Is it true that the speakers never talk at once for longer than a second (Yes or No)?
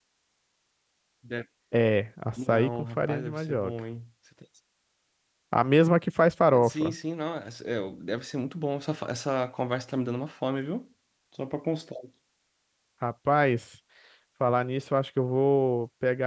No